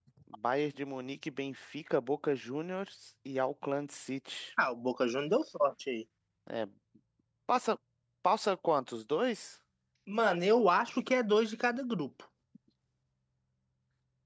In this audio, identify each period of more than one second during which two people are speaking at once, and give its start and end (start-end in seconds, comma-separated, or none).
none